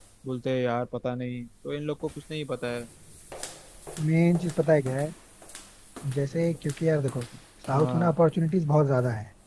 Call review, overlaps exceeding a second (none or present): none